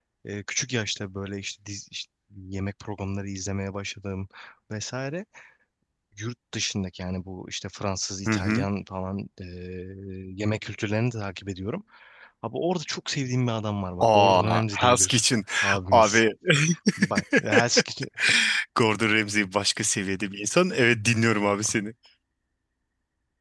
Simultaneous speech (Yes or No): Yes